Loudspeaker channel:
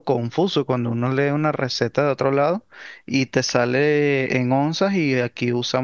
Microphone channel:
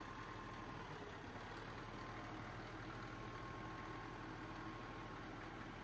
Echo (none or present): none